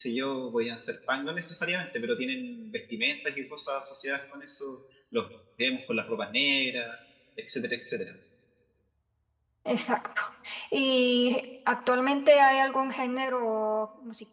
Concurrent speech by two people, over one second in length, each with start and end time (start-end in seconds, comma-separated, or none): none